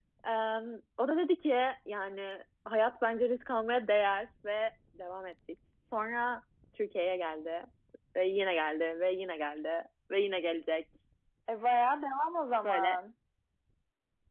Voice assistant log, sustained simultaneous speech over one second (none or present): none